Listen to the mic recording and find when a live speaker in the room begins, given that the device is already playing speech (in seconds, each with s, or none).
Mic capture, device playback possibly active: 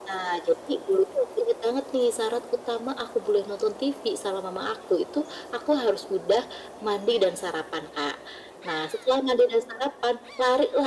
none